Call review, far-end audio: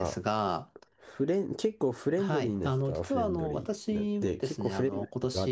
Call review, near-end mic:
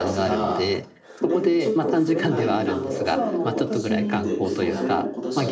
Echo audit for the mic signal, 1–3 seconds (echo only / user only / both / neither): both